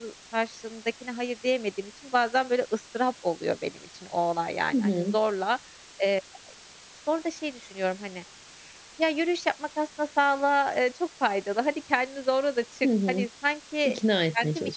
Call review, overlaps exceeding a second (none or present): none